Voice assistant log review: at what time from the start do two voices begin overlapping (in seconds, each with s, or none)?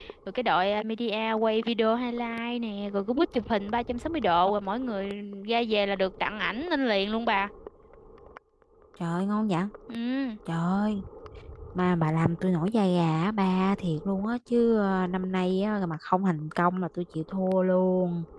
none